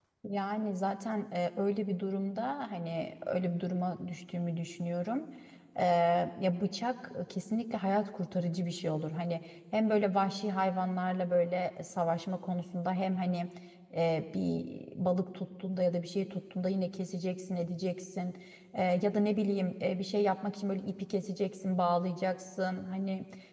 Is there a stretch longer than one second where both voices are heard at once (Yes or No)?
No